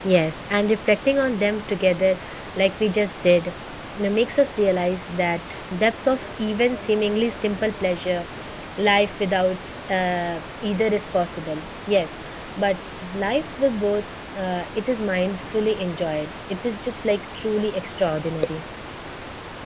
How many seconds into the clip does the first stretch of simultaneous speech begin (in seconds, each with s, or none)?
none